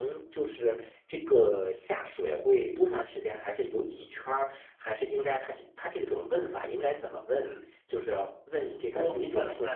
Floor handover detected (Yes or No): Yes